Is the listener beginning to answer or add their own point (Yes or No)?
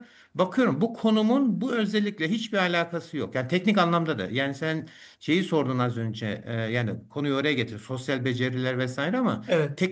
No